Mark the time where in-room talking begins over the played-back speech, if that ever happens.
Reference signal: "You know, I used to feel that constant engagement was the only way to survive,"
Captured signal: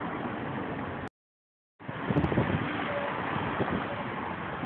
none

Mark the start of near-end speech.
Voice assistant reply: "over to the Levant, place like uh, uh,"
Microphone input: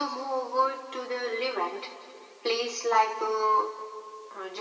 none

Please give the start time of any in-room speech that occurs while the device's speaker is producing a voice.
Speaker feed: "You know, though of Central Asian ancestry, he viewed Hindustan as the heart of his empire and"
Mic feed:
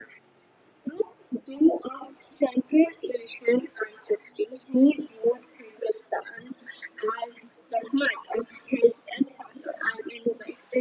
none

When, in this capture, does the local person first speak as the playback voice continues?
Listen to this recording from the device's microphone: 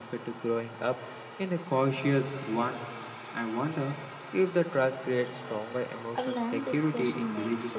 6.1 s

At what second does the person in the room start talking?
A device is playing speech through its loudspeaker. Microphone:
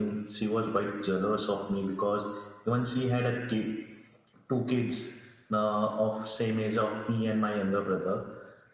none

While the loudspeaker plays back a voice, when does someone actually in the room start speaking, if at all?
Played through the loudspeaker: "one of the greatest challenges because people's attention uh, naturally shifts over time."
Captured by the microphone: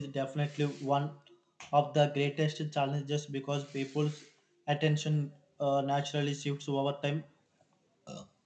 none

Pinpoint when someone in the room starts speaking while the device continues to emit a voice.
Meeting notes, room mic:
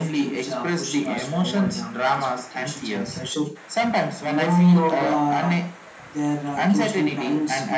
none

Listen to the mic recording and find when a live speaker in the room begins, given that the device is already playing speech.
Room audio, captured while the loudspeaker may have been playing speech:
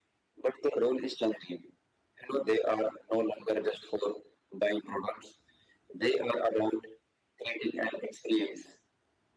none

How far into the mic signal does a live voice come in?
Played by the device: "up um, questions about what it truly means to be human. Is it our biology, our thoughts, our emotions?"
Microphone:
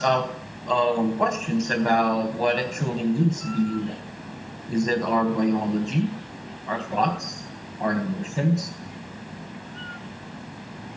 none

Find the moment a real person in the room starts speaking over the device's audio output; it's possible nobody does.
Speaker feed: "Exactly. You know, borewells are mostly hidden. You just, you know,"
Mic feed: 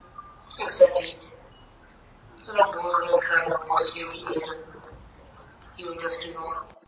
none

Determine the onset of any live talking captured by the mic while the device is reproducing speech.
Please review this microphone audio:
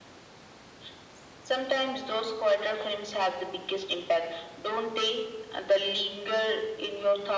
none

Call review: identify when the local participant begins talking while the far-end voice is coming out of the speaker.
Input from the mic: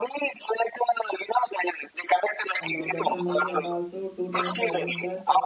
2.6 s

